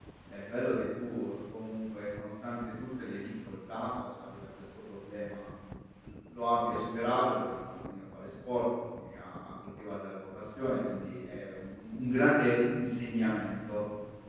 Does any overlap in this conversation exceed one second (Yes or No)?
No